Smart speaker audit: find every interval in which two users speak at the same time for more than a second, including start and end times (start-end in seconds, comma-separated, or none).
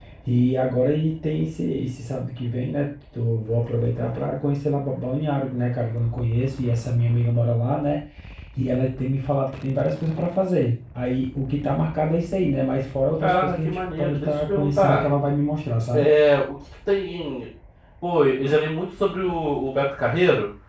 13.2-15.0